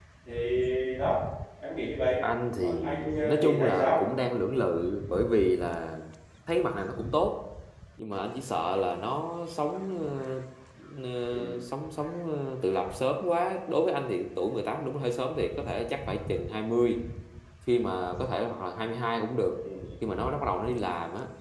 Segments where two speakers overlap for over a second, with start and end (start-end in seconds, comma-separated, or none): 2.6-4.0